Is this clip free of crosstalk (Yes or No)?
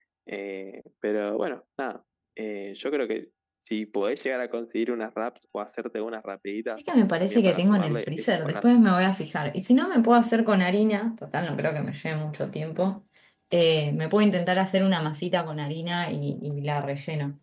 No